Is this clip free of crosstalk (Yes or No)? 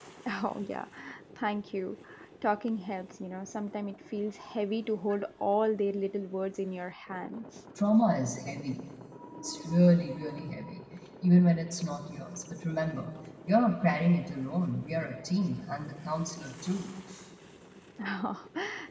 Yes